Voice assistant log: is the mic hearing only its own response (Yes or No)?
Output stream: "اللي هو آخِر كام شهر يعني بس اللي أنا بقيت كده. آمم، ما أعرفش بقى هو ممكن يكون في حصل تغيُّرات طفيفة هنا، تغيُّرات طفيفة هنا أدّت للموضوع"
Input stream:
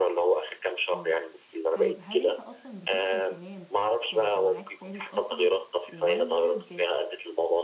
No